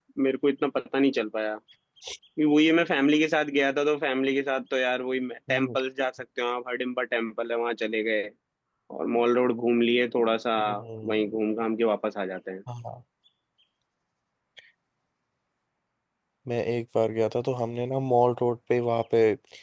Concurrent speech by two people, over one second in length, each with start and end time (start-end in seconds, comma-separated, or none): none